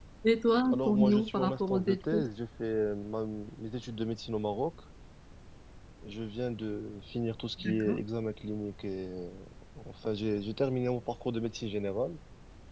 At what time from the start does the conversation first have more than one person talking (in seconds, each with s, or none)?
0.7 s